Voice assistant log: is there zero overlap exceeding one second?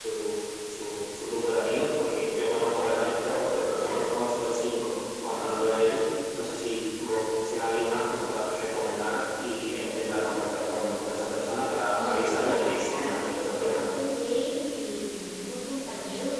No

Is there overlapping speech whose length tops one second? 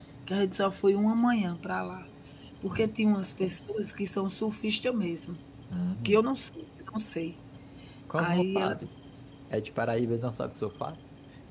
No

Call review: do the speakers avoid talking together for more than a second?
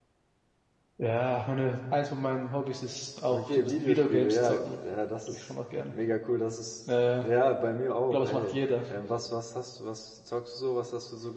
No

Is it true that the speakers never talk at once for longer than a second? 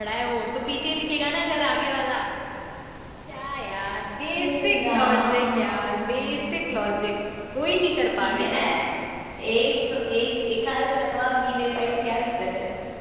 No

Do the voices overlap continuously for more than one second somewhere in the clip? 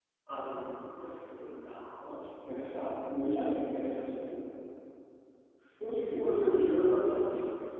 No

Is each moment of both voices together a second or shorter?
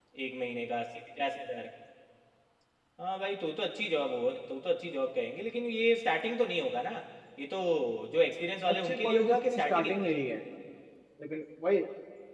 No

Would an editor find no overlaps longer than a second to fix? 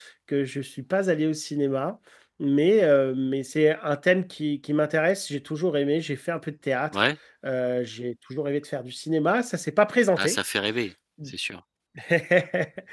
Yes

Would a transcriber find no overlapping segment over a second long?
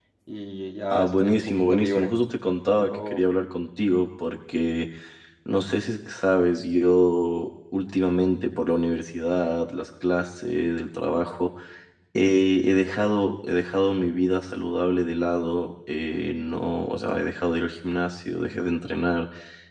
No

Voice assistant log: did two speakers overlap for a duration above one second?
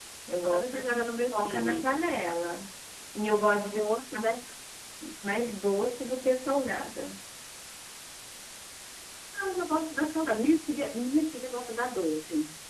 Yes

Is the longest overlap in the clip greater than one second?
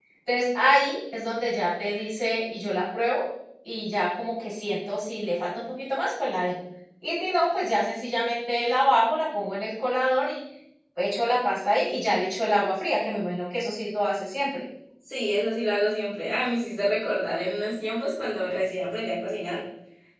No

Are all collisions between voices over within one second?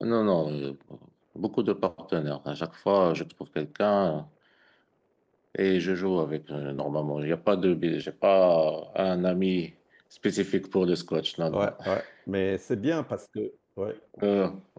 Yes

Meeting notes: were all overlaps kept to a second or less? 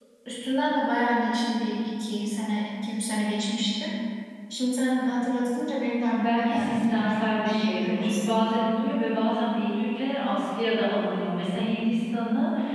No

